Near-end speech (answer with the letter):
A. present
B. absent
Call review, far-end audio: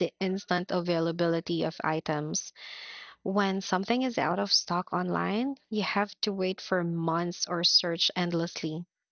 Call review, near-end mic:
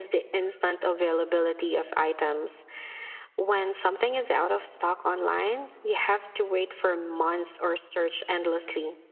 B